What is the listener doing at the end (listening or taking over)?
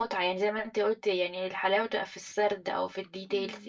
taking over